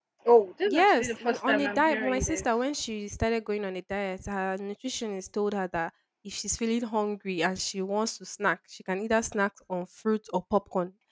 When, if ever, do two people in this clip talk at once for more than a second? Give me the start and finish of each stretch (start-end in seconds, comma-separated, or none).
0.7-2.4